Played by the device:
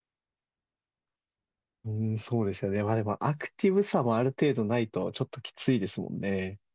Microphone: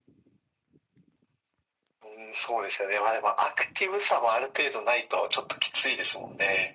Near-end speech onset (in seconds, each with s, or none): none